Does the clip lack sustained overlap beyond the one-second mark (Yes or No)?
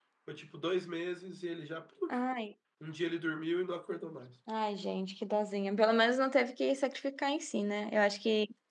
Yes